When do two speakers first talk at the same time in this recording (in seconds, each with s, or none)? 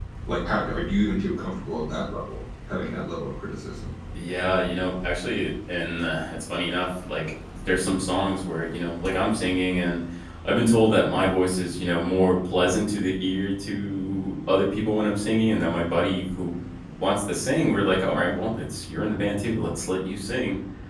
none